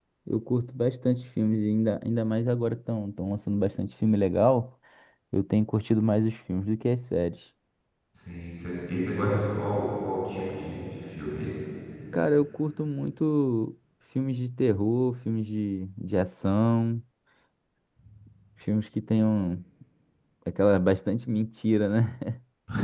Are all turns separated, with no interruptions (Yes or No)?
Yes